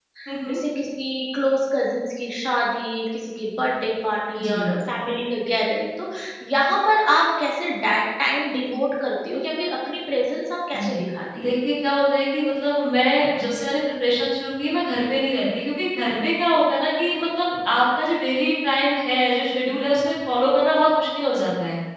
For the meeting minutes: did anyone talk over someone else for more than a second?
No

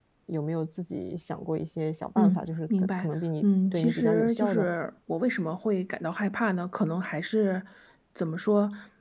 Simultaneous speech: Yes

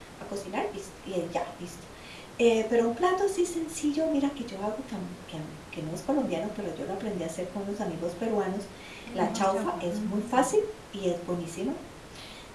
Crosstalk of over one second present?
Yes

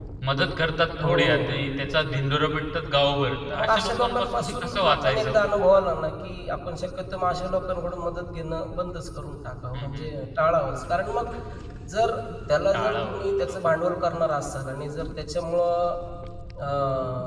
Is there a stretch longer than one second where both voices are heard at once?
Yes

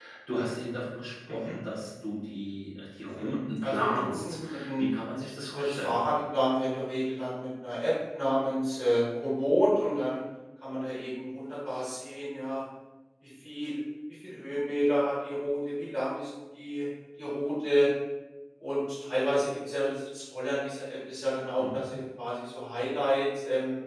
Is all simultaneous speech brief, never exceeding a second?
No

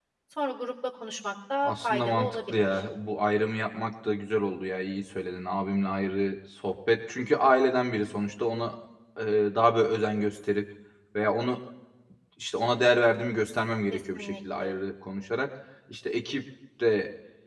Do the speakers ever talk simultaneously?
Yes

